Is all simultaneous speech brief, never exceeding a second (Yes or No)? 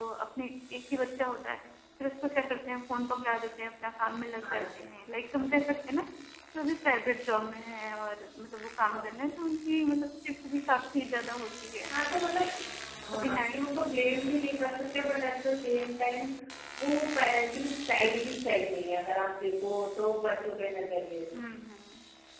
Yes